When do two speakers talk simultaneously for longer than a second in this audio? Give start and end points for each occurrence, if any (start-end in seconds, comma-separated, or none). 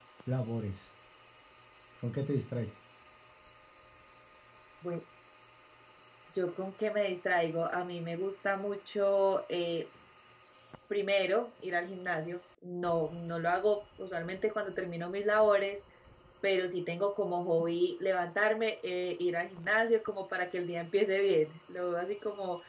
none